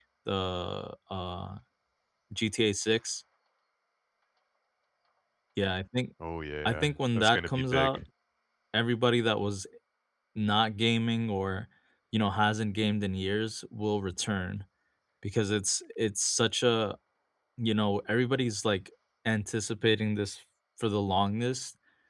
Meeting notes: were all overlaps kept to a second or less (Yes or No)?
No